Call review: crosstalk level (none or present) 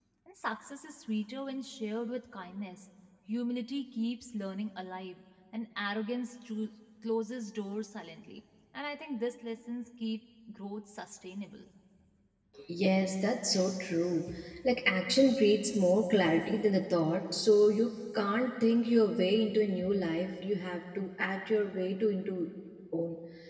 none